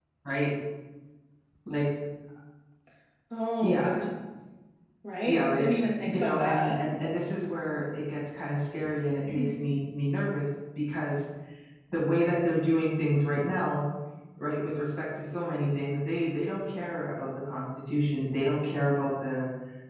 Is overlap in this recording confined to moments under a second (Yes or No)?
No